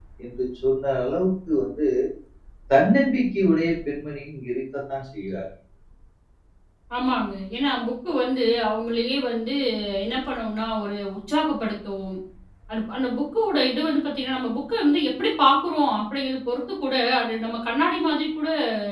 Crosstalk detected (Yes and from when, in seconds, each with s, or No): No